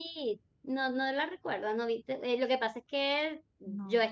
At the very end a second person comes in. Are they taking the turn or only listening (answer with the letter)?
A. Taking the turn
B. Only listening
B